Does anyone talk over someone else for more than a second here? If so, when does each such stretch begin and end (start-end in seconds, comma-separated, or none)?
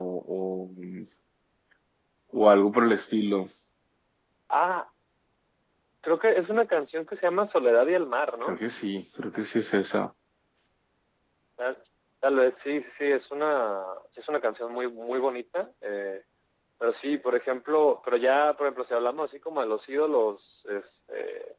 none